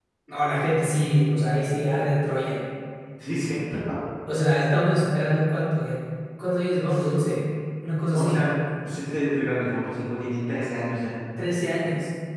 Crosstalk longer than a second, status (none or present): none